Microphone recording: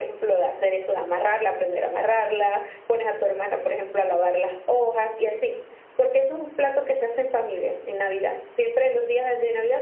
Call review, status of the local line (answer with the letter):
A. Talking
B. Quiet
B